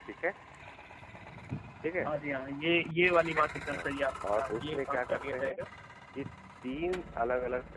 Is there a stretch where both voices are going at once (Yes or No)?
Yes